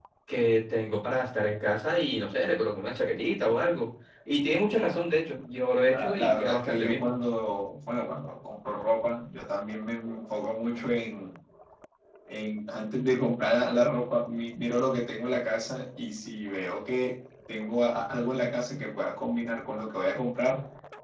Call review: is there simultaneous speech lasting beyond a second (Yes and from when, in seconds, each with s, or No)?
Yes, from 5.9 s